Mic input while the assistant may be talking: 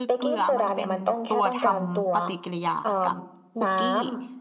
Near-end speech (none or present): present